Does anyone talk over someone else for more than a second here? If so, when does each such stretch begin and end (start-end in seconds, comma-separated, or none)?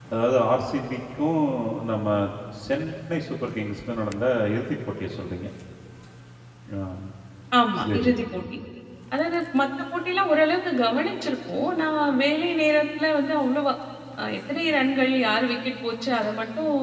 none